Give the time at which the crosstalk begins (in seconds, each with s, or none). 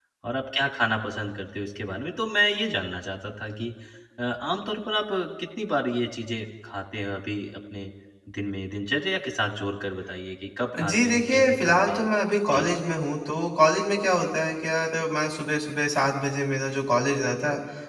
10.7 s